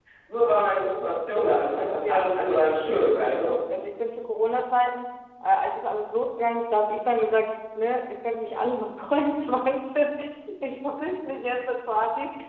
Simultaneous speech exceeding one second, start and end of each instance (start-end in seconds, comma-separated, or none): 2.0-3.6